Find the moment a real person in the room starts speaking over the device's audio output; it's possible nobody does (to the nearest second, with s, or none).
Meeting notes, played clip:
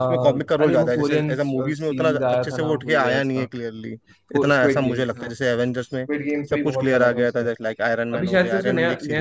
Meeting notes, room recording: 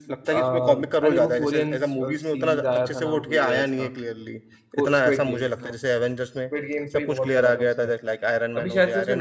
none